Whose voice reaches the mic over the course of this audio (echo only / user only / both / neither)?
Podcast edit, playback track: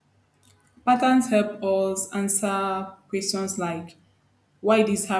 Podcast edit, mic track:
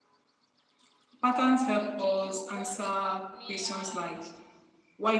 both